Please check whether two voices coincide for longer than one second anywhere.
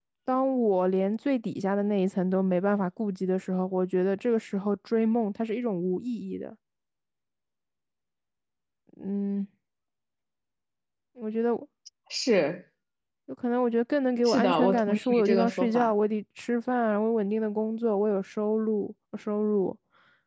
Yes, from 14.2 s

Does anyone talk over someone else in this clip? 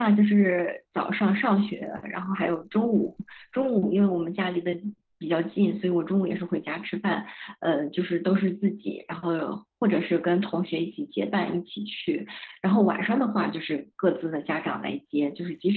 No

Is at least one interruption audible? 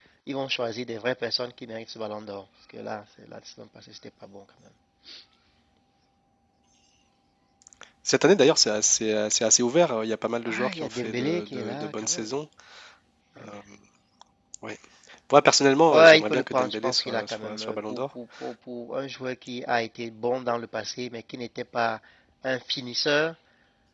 Yes, from 10.5 s

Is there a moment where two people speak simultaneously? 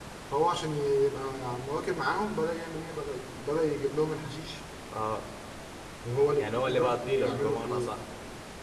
Yes, from 6.4 s

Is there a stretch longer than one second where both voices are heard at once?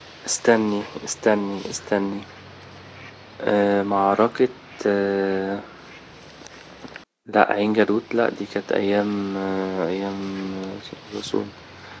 No

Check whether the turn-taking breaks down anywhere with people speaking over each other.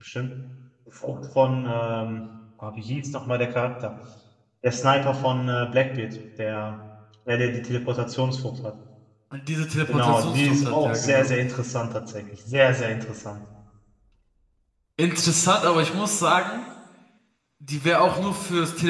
Yes, from 9.9 s

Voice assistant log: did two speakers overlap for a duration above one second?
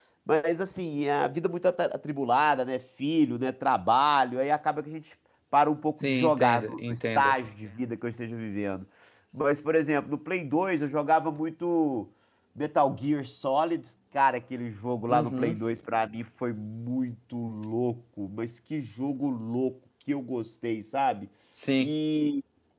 Yes, from 6.0 s

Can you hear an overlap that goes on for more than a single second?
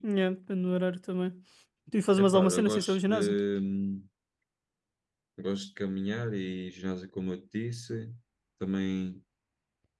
Yes, from 2.1 s

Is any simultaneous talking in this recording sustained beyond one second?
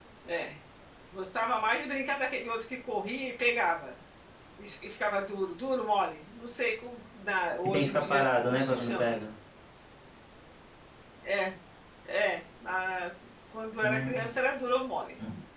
Yes, from 7.6 s

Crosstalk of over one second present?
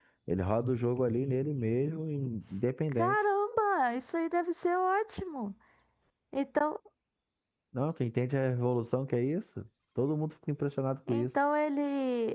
No

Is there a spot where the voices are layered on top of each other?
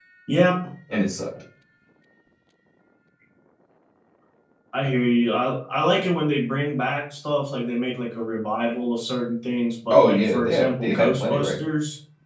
Yes, from 9.9 s

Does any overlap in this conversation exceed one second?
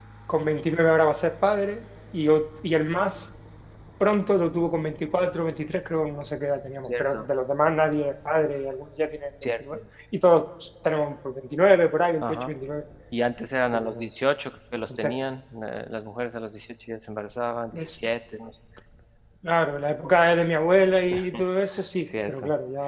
No

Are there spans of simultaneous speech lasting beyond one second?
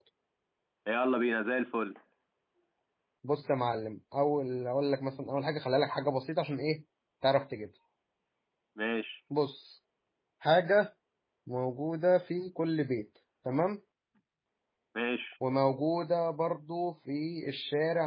No

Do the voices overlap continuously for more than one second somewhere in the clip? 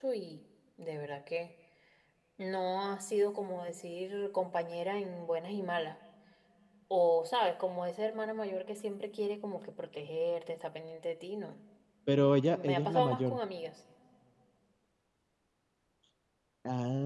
Yes, from 12.1 s

